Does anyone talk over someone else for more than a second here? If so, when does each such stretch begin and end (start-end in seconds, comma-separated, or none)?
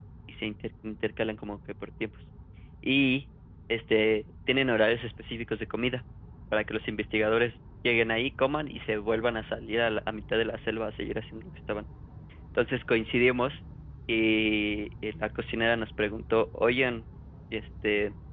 none